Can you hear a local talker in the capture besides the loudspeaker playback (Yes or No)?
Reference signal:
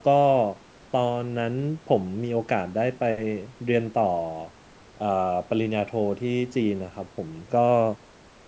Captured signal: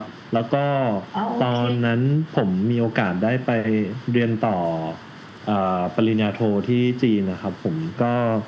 Yes